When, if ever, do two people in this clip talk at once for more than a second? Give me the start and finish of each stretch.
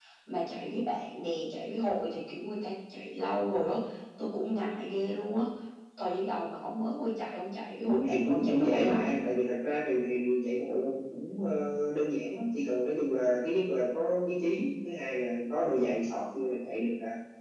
7.8-9.1

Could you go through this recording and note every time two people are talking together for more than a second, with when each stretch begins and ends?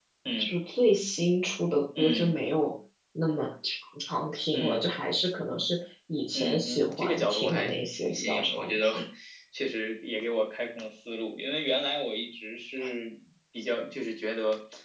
6.4-8.9

